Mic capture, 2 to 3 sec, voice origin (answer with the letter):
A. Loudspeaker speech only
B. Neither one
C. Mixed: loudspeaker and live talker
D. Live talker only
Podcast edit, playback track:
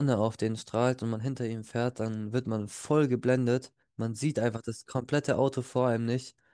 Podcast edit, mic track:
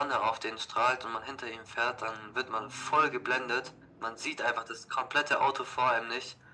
A